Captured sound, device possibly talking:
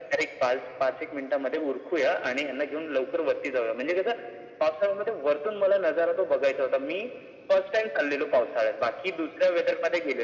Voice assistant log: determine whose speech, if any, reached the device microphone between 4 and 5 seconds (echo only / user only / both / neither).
echo only